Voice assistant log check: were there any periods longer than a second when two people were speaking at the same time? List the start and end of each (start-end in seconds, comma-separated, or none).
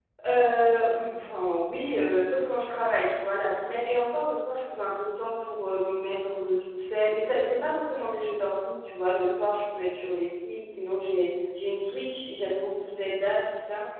none